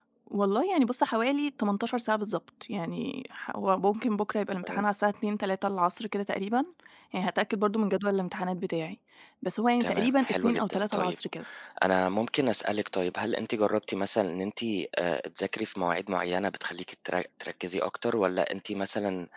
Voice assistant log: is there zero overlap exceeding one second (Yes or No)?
No